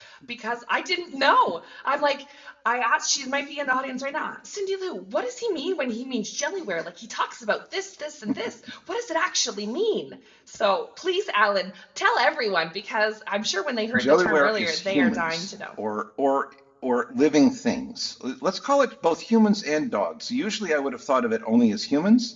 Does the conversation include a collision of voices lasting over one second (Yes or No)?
Yes